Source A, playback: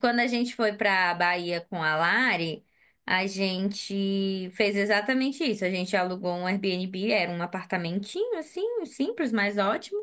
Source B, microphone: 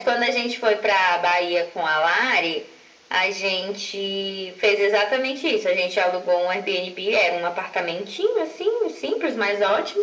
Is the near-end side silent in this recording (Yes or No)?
Yes